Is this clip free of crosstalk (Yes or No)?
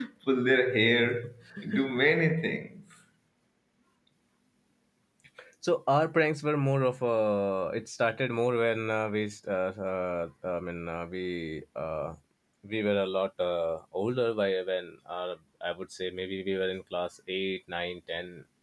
Yes